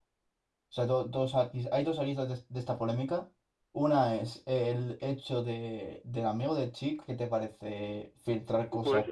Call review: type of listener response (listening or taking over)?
taking over